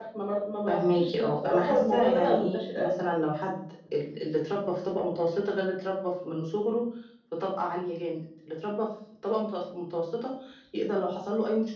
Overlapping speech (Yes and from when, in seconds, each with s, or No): Yes, from 0.7 s